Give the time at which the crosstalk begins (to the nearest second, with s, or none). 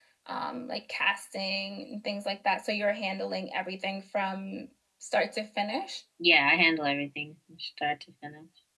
none